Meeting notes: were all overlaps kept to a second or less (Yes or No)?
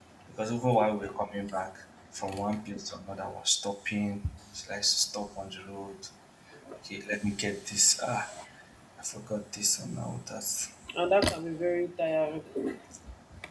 Yes